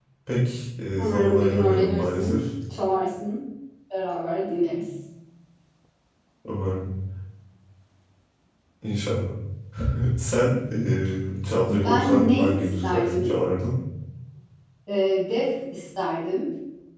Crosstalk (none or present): present